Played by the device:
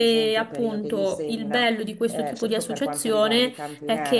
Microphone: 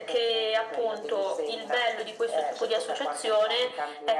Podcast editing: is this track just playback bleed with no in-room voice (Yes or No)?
Yes